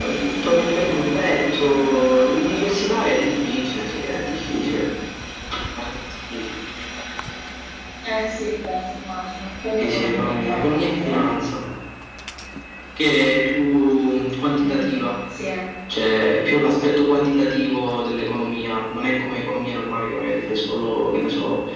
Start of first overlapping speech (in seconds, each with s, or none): 9.8 s